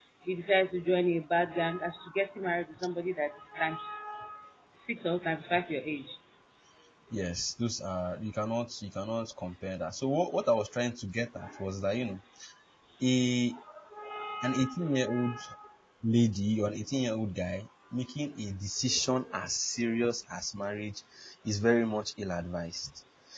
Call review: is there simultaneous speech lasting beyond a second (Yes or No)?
No